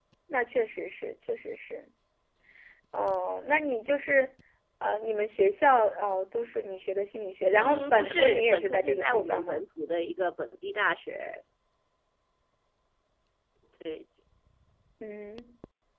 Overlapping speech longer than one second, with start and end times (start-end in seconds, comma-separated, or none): 7.5-9.6